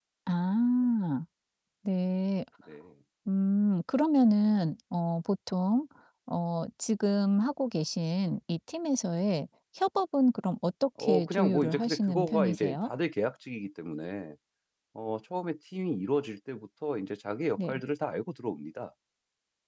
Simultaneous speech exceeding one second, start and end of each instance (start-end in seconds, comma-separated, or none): 11.0-12.9